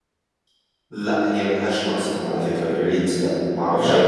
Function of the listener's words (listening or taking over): listening